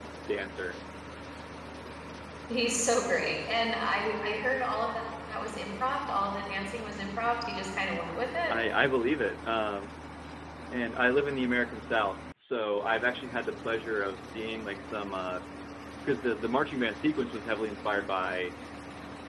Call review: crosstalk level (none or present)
none